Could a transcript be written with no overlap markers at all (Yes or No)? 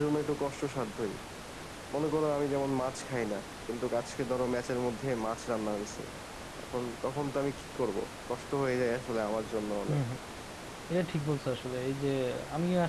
Yes